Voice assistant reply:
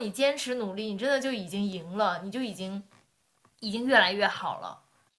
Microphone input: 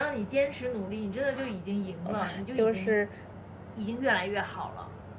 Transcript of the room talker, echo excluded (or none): 嗯就是